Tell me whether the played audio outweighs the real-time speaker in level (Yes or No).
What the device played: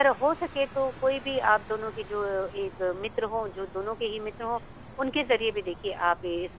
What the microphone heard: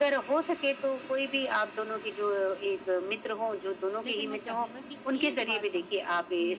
Yes